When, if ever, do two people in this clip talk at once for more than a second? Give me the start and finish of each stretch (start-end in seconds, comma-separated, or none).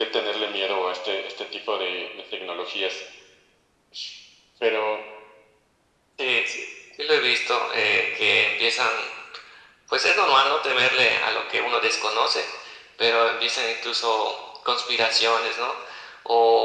none